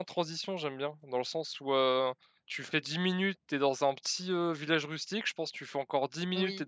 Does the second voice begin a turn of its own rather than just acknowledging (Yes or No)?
No